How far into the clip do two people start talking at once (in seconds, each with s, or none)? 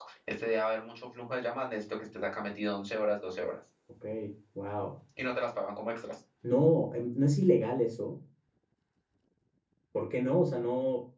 none